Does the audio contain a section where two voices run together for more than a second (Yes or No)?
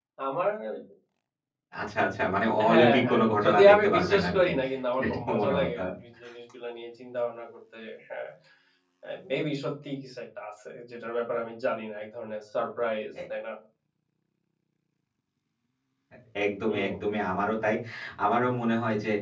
Yes